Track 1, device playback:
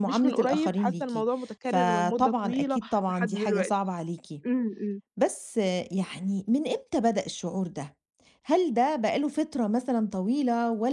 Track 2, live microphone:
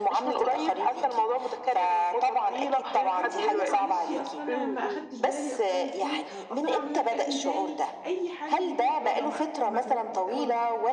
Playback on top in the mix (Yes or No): Yes